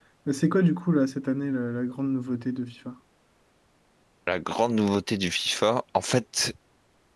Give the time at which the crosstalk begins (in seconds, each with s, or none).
none